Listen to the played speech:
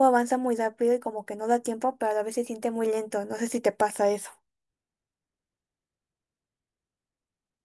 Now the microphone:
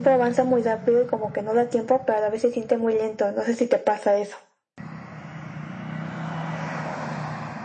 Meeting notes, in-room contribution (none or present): none